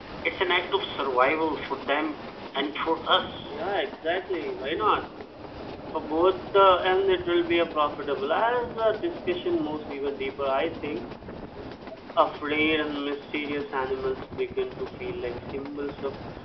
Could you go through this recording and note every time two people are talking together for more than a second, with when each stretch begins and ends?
none

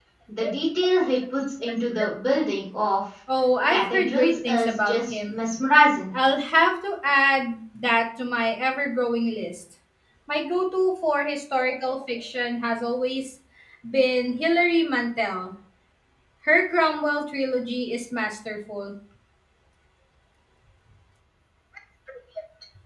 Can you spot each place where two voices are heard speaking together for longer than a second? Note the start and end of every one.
3.7-5.4

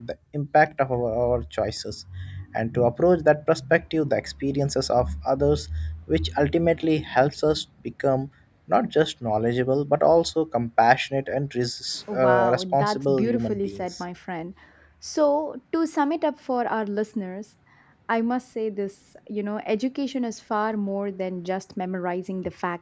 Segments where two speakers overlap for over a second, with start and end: 12.1-14.0

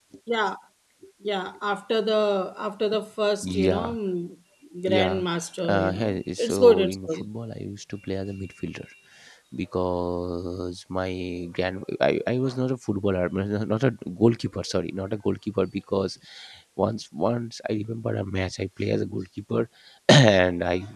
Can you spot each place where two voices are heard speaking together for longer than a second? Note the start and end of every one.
5.7-7.3

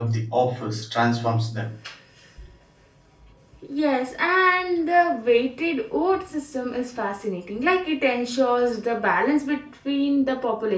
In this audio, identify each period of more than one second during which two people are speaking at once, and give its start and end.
none

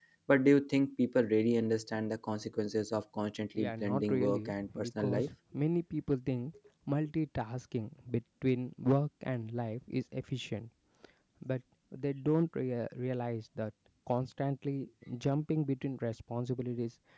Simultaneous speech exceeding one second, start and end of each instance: 3.6-5.3

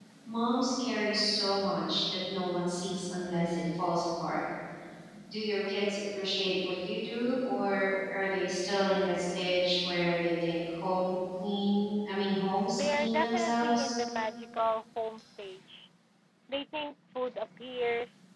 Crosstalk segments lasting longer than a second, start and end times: 12.7-13.9

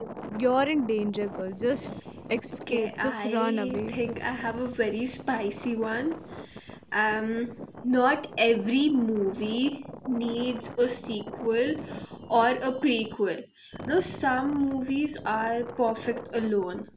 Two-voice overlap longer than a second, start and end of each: 2.7-3.9

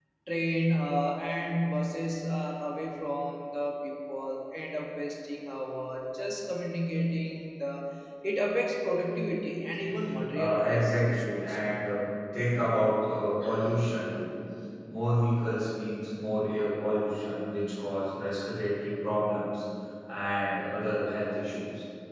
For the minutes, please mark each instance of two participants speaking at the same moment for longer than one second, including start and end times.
10.3-11.7

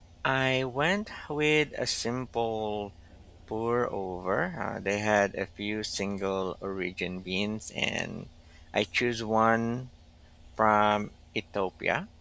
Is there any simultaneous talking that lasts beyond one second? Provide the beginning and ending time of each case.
none

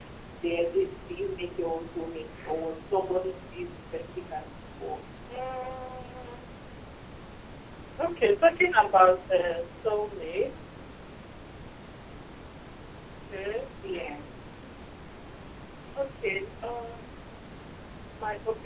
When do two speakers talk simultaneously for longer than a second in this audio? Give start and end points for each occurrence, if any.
none

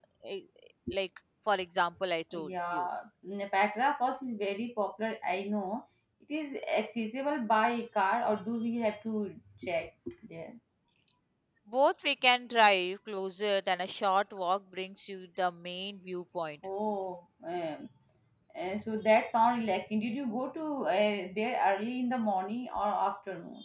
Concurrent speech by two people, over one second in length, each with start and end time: none

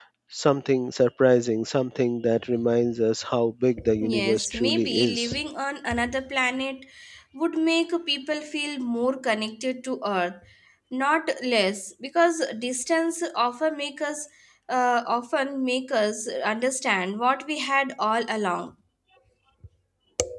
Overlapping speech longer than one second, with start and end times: 4.0-5.4

